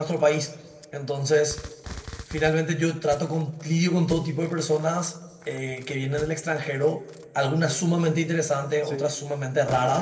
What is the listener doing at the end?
listening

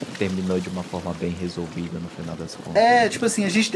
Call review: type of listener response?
taking over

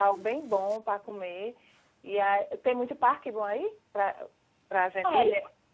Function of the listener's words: taking over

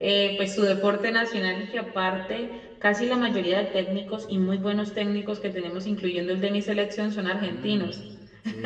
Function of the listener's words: taking over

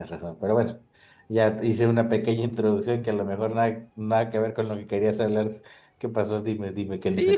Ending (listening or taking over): taking over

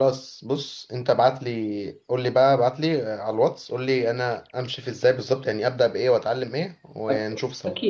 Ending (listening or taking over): taking over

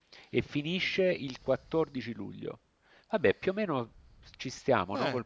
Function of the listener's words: taking over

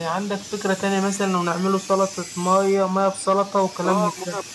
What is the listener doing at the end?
taking over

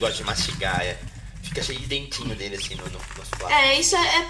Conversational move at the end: taking over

